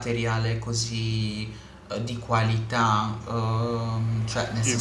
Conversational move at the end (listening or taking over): listening